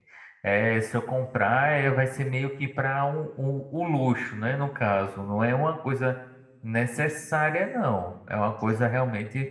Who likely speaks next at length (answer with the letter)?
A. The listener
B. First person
B